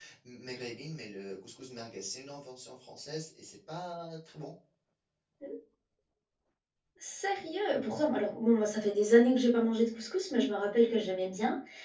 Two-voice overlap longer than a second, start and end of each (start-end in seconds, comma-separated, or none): none